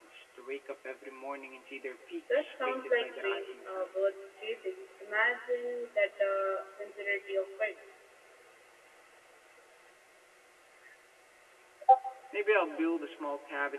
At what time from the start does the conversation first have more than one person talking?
2.3 s

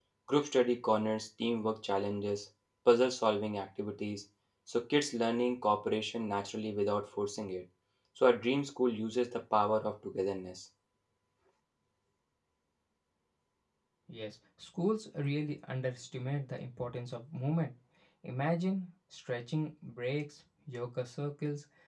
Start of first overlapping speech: none

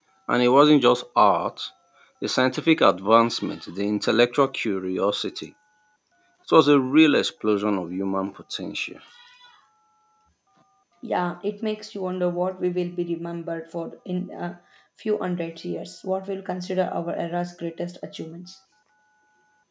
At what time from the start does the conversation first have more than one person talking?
none

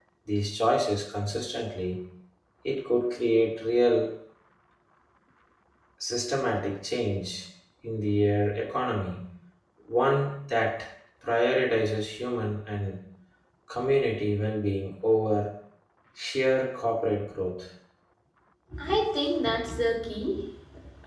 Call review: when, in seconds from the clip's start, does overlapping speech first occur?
none

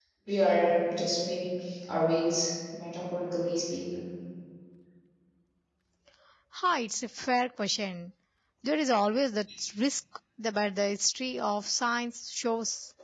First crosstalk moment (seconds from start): none

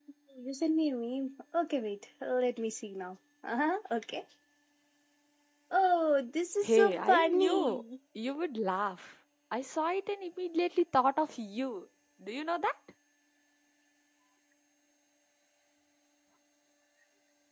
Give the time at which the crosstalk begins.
6.6 s

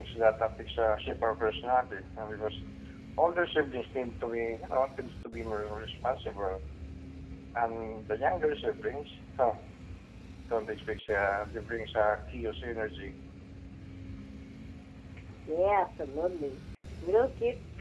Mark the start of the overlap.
none

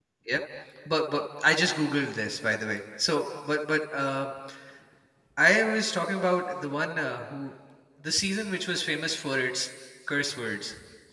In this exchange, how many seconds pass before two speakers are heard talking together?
none

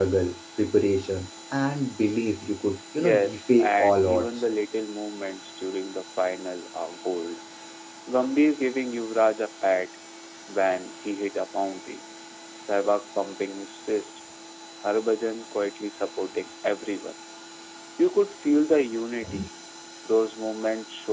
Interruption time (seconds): 3.0 s

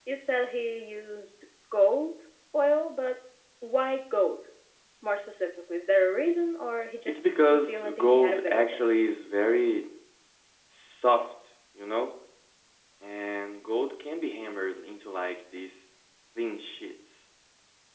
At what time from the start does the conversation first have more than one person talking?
7.1 s

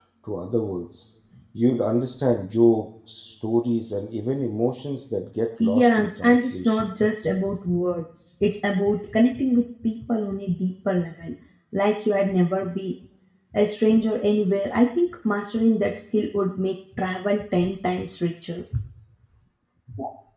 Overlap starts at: 5.6 s

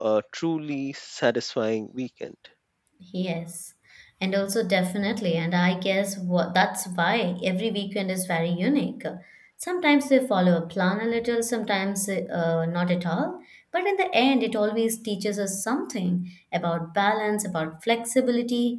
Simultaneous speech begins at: none

